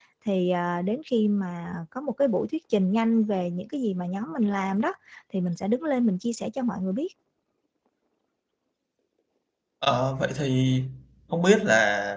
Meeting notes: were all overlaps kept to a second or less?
Yes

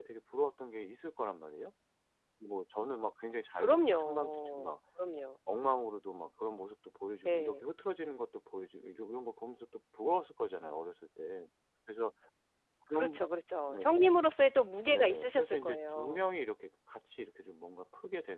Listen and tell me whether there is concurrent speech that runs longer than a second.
Yes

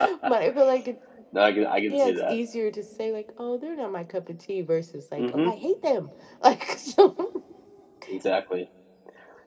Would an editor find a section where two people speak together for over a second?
No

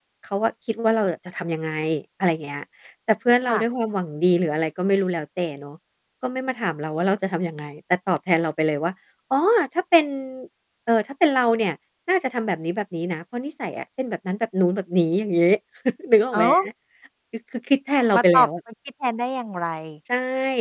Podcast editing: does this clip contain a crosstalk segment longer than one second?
No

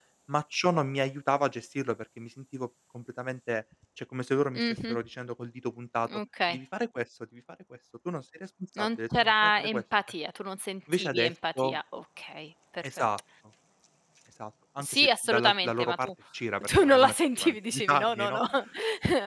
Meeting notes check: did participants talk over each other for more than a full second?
Yes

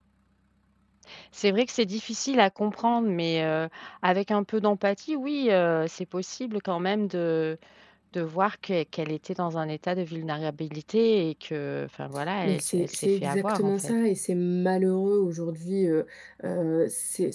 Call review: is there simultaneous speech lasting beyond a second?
Yes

